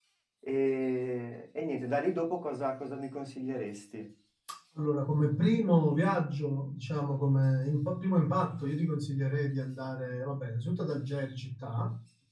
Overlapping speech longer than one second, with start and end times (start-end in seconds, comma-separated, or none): none